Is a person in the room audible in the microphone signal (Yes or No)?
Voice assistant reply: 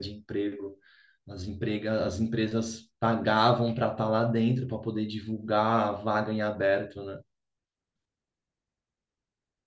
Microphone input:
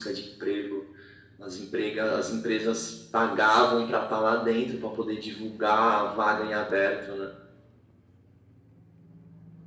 No